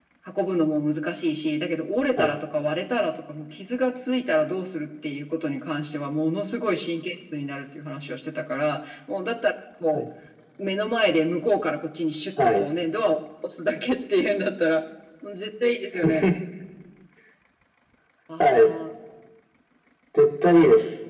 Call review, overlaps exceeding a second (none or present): none